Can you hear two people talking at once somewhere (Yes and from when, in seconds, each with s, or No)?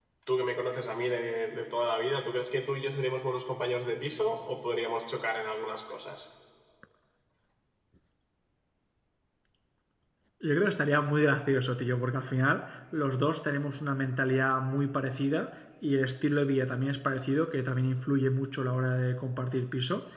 No